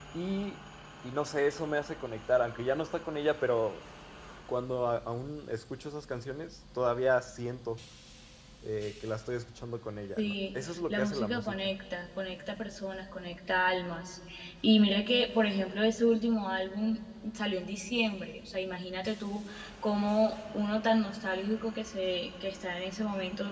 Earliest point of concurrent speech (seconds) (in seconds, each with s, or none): 10.2 s